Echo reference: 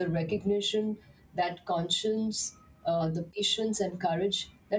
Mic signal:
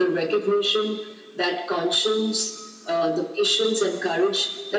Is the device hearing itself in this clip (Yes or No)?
Yes